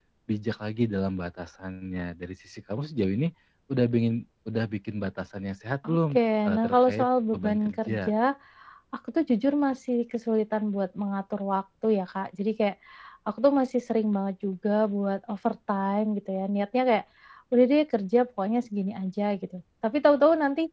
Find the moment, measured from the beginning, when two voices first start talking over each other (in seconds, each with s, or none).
5.8 s